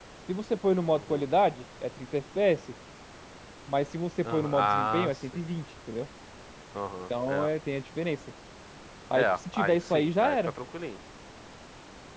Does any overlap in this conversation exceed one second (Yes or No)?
Yes